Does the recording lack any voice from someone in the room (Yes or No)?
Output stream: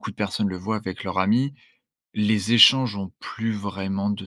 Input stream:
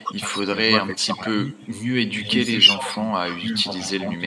No